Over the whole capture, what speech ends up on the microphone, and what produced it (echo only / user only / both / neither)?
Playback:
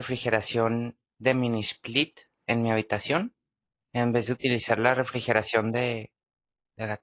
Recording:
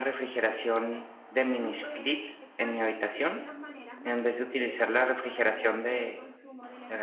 both